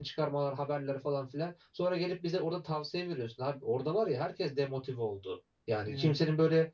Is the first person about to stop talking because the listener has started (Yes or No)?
No